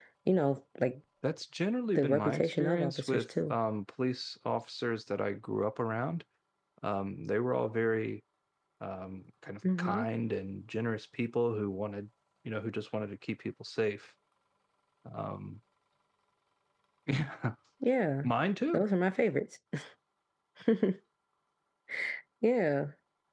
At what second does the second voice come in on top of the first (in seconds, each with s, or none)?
1.9 s